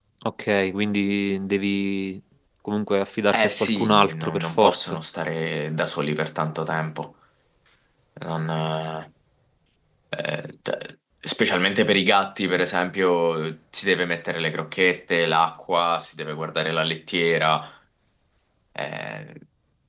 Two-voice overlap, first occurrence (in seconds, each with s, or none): 3.3 s